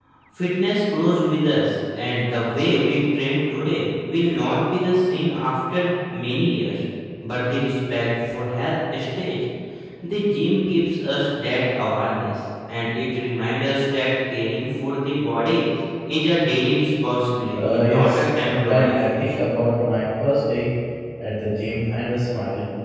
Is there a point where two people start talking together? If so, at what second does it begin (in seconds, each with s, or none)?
17.5 s